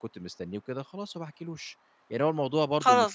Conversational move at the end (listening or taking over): taking over